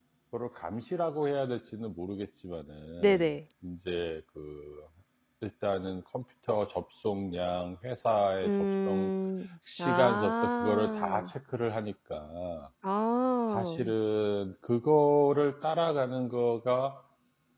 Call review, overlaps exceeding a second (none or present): present